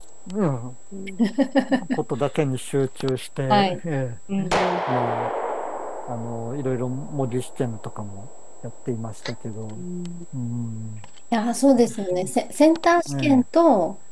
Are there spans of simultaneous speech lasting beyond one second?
No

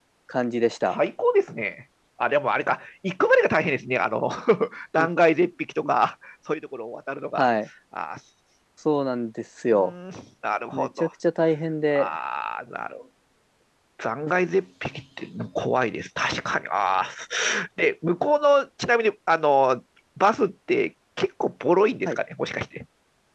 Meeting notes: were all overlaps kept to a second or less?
Yes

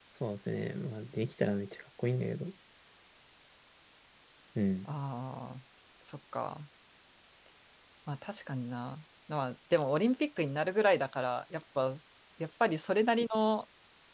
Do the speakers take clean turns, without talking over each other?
Yes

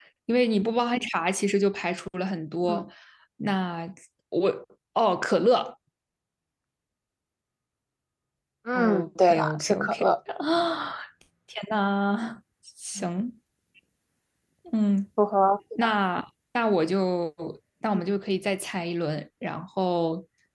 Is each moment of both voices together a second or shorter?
No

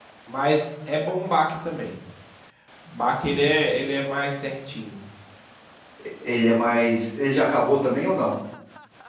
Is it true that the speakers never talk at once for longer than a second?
Yes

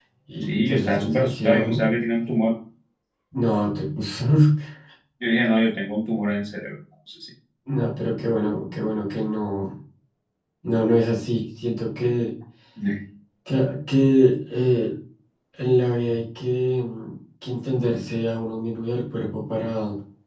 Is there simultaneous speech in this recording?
Yes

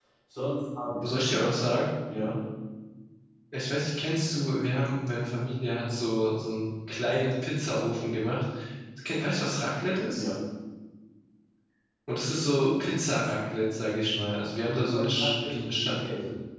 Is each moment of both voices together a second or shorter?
No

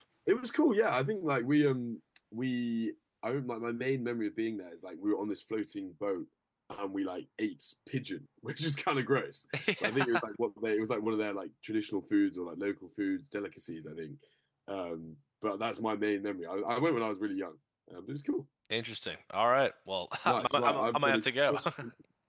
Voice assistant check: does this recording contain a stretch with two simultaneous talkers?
Yes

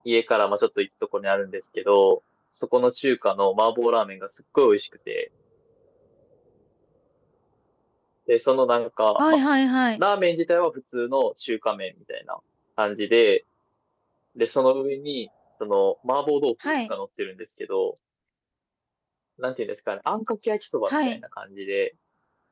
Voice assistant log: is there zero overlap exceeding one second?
Yes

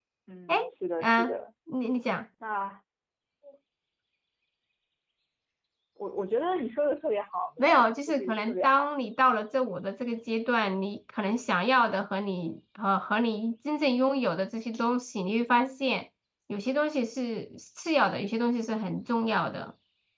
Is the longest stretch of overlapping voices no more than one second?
No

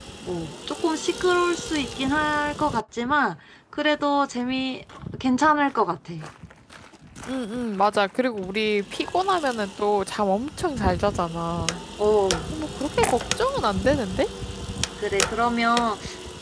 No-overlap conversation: Yes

